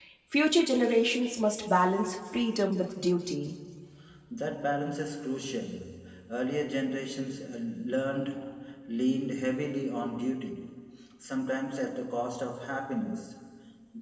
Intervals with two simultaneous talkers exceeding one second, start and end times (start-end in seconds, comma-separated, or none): none